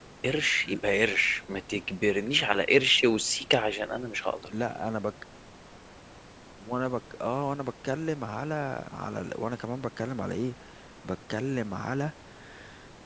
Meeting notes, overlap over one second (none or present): none